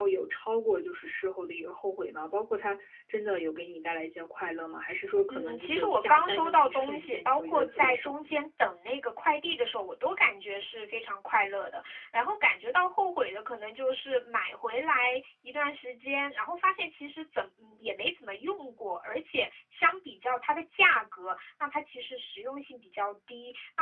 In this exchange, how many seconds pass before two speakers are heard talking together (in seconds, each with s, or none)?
5.3 s